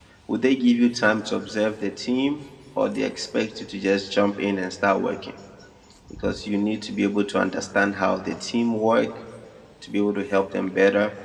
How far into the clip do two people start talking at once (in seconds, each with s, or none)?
none